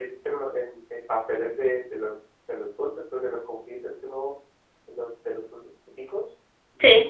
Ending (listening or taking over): listening